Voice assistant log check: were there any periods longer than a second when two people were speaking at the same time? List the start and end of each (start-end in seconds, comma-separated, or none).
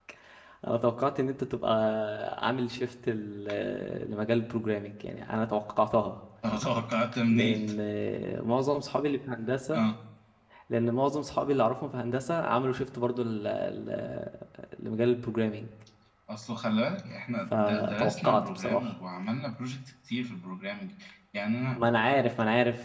17.5-18.9